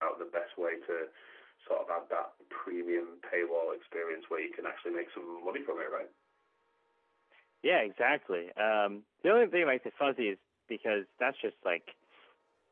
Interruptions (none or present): none